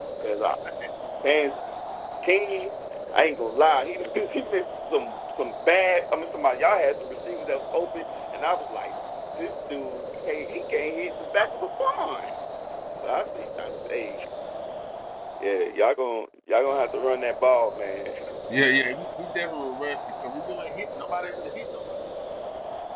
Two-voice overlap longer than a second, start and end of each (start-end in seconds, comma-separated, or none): none